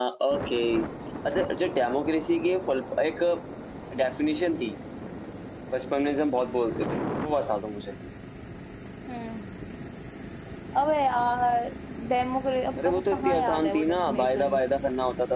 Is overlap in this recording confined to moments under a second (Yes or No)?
No